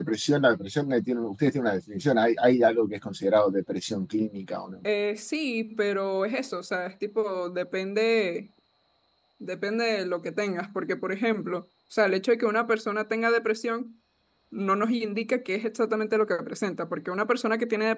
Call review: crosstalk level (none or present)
none